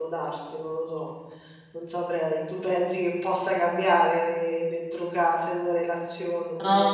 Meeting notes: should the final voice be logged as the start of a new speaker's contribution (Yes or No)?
Yes